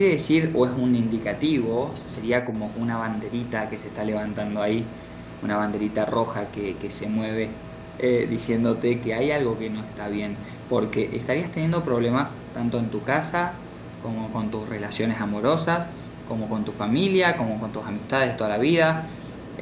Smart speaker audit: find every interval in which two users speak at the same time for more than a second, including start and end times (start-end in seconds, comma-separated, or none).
none